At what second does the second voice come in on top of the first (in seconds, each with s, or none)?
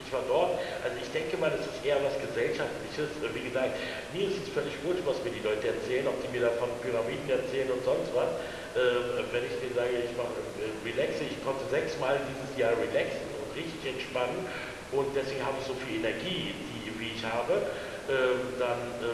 none